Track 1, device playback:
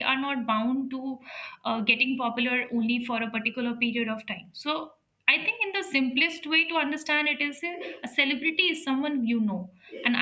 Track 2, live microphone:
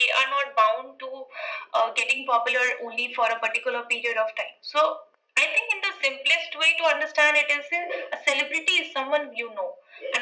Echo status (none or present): present